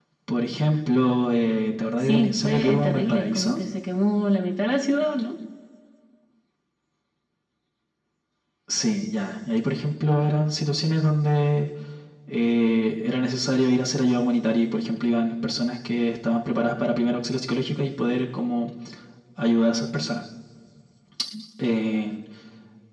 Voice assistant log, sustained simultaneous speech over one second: present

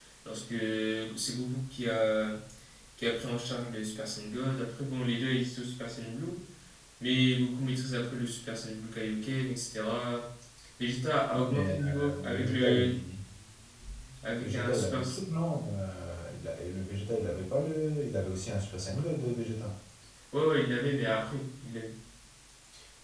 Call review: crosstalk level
present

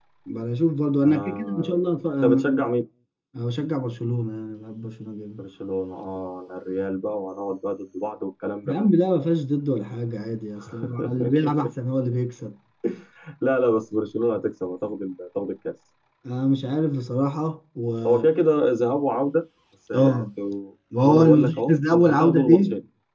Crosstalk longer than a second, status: present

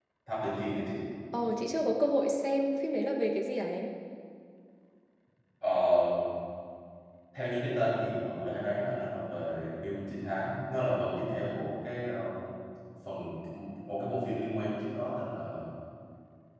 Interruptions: none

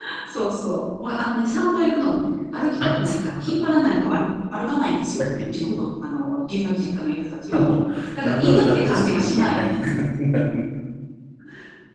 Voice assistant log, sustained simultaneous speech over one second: present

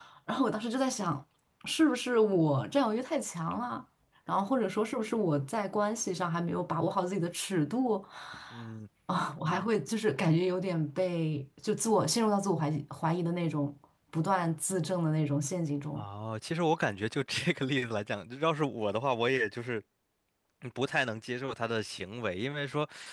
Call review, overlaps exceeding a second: none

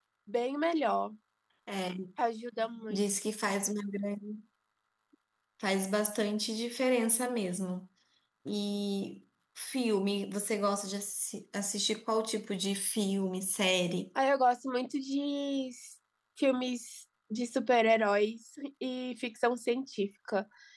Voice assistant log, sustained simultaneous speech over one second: none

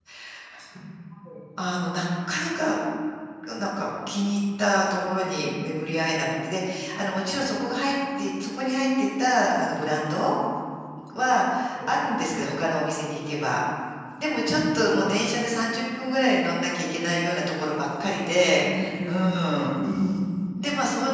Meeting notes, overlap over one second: none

